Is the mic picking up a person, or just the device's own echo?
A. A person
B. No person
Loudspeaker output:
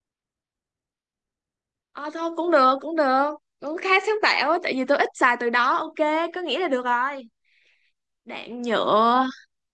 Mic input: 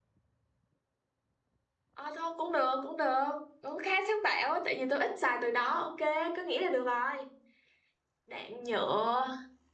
B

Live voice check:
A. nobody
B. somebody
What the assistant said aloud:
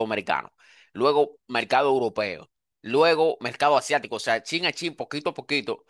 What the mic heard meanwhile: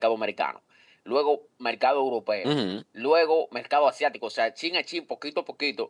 B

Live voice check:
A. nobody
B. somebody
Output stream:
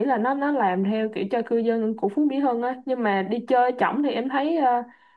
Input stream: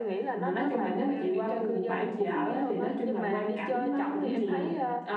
B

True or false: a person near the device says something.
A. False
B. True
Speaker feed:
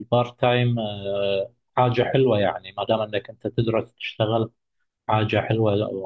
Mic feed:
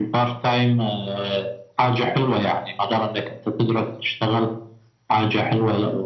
A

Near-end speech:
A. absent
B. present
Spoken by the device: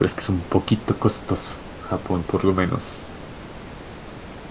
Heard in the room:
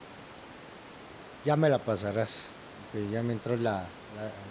B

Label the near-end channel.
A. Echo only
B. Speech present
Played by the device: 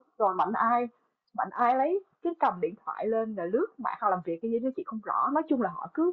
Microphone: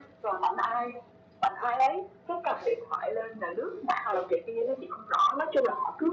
A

